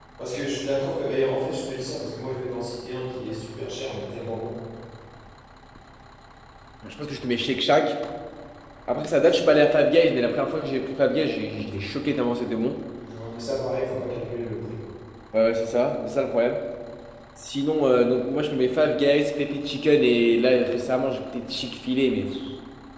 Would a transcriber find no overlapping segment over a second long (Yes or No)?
Yes